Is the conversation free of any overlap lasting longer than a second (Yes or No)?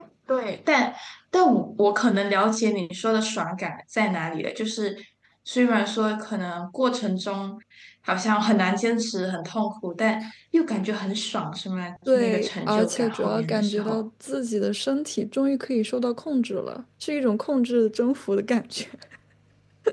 No